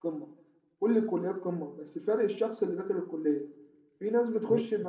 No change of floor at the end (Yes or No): Yes